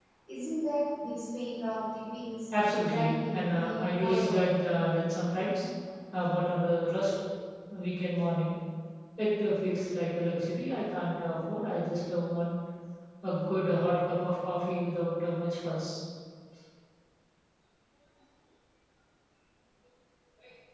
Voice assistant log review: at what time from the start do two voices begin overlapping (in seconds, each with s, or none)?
2.5 s